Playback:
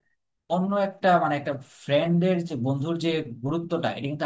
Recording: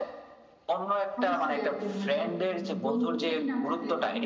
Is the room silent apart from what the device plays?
No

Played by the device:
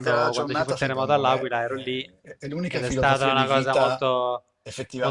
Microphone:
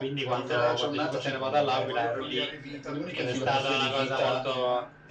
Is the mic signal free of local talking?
No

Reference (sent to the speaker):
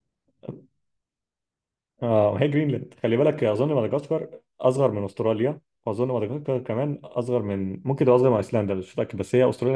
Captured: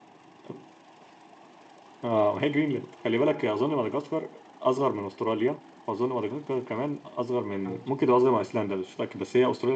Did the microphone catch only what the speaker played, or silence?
No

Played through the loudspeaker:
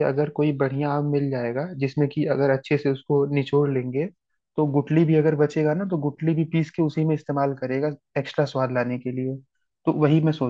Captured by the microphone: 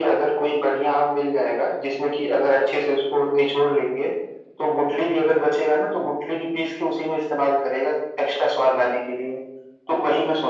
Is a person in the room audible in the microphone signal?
No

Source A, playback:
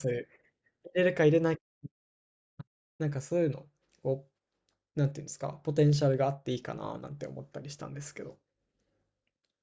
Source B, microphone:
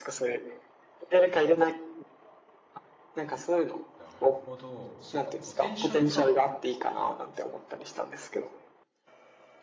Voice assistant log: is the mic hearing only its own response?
No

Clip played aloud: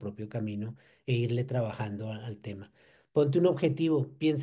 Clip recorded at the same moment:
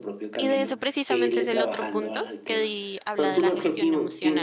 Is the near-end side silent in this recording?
No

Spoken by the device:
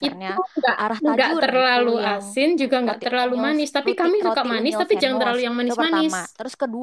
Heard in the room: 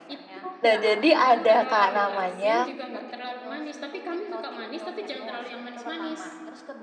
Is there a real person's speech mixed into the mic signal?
Yes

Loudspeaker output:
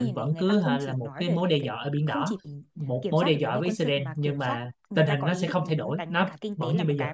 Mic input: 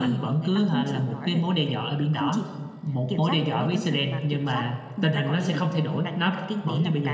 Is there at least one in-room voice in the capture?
No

